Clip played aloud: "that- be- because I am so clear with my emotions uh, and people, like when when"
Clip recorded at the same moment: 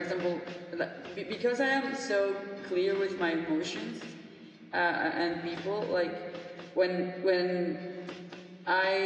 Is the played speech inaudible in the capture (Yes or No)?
No